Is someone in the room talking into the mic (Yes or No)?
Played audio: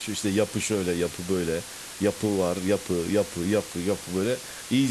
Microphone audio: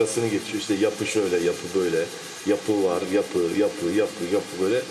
No